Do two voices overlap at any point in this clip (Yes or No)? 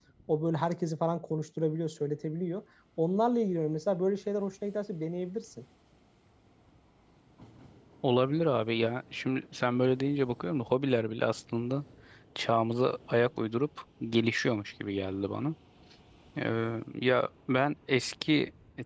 No